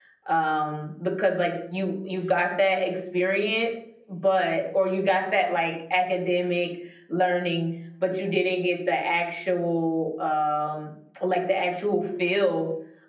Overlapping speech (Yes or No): No